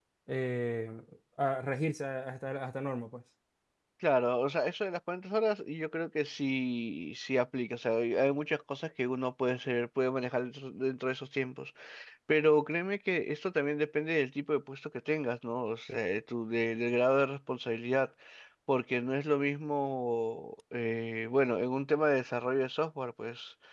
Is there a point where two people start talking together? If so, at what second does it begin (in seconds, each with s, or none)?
none